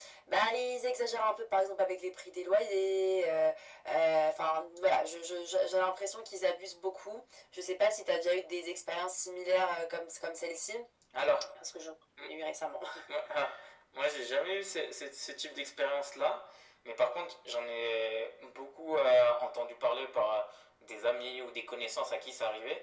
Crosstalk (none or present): none